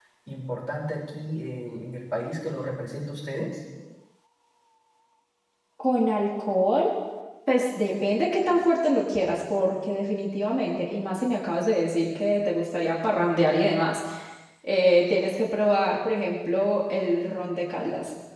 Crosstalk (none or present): none